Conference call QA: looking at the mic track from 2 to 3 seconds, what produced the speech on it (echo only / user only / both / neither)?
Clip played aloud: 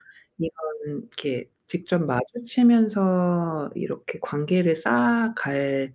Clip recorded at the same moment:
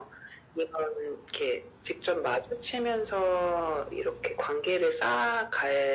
echo only